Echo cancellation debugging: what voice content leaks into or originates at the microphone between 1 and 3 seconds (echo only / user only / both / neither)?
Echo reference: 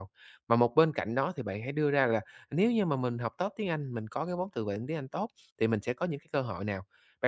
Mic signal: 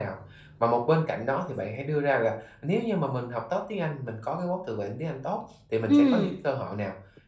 echo only